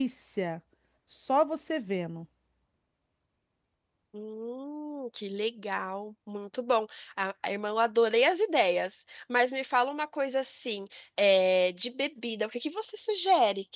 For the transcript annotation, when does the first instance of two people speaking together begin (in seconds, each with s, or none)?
none